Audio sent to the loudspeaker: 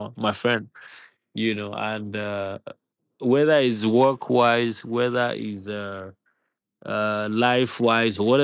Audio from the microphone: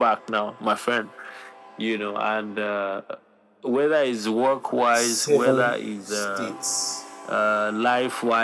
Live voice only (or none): seven states